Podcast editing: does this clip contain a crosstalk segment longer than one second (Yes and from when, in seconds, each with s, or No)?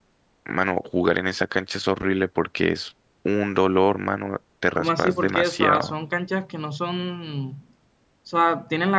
Yes, from 4.7 s